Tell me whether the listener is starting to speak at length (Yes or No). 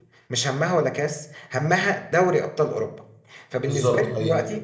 No